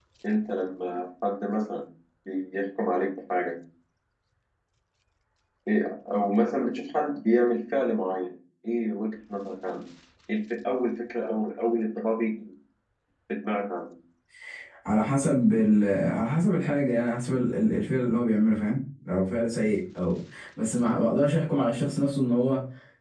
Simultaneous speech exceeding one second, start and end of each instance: none

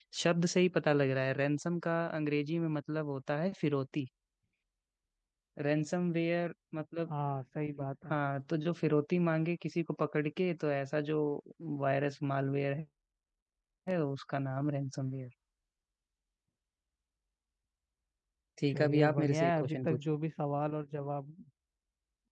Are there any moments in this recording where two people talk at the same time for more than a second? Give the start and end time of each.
18.7-20.0

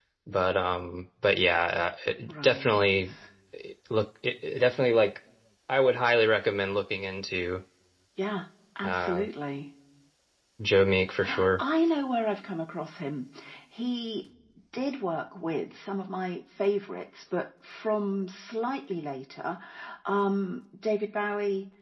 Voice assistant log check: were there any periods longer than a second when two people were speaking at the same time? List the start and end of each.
none

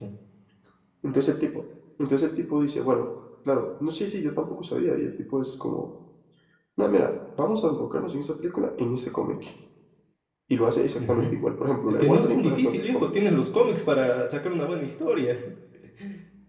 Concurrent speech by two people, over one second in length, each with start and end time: 11.9-13.1

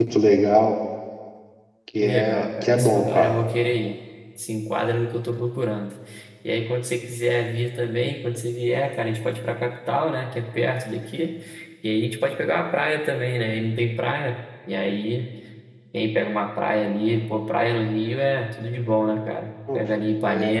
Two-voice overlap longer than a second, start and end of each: 2.0-3.3

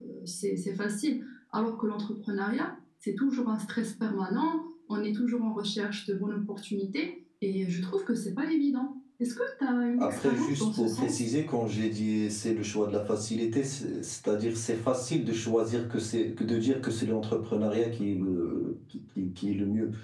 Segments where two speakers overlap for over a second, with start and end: 10.0-11.2

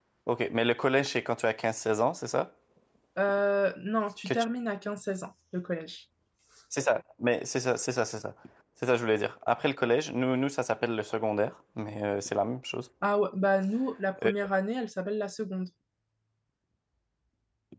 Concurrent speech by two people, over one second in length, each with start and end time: none

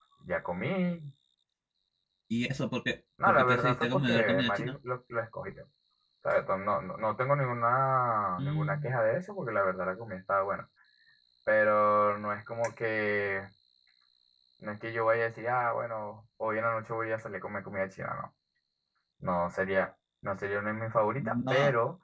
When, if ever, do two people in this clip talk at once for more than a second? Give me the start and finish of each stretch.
3.3-4.8

